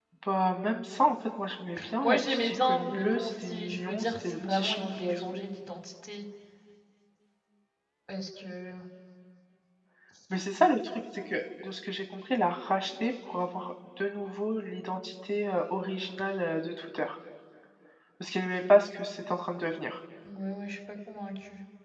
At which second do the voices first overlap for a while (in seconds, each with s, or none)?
1.8 s